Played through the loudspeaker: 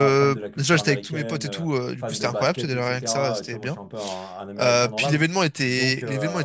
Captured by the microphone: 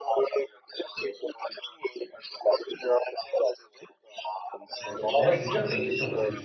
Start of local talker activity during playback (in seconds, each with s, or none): 4.8 s